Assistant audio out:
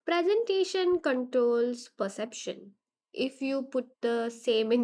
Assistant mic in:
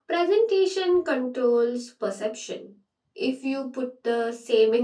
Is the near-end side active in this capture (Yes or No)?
No